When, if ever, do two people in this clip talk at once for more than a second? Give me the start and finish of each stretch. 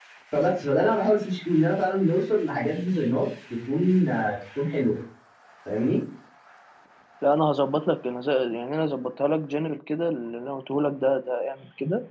none

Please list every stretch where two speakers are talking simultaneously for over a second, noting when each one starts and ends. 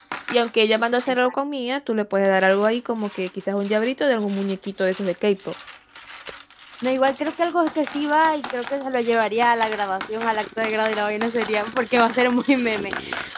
none

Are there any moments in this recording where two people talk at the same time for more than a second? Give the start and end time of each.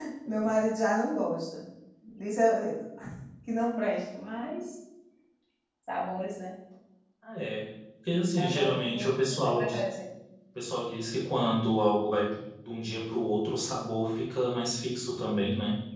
8.4-9.7

